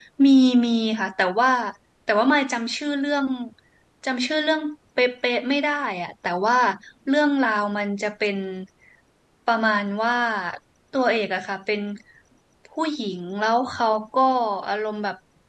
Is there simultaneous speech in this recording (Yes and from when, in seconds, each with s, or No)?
No